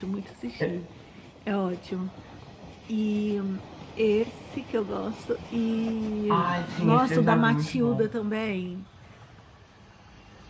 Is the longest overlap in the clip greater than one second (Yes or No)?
Yes